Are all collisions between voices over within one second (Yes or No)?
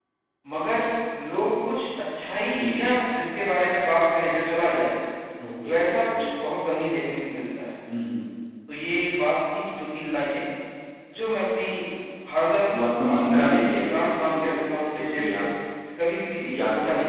No